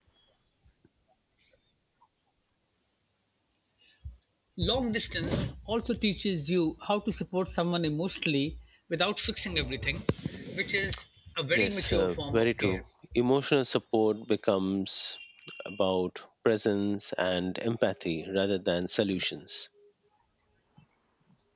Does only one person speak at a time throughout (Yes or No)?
No